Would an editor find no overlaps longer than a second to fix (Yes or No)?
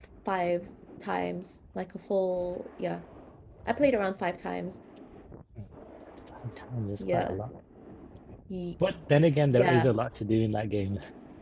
Yes